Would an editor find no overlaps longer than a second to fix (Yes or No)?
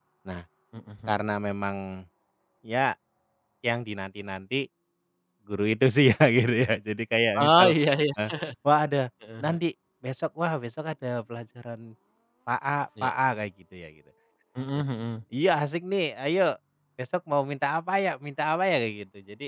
Yes